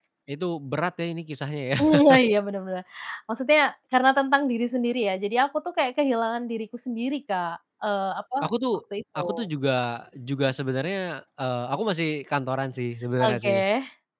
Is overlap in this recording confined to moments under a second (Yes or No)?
Yes